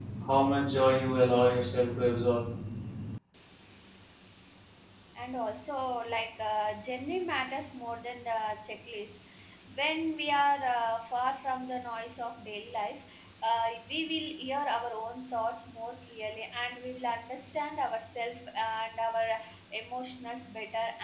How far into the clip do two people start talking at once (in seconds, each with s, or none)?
none